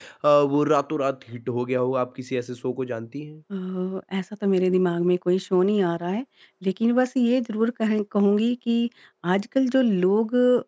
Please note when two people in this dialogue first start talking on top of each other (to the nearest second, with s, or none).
none